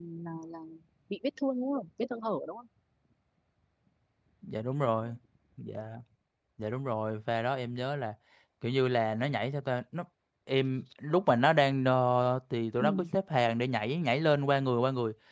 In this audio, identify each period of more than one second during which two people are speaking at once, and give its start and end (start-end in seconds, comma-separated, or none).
none